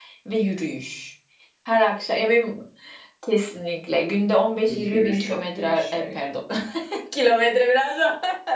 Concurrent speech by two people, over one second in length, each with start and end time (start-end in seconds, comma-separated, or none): 4.7-6.0